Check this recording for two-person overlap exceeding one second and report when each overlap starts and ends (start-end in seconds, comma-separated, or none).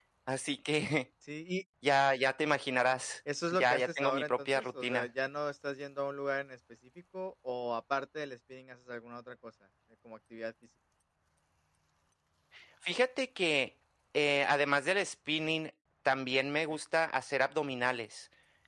3.5-5.1